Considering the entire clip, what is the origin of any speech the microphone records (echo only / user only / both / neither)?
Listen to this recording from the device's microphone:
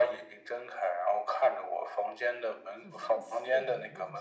both